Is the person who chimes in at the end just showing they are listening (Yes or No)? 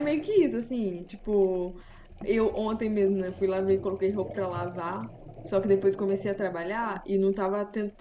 Yes